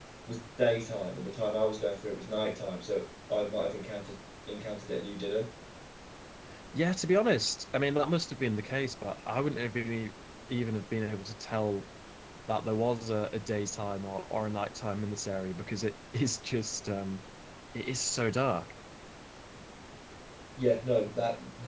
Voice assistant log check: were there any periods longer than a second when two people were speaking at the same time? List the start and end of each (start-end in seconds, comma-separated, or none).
none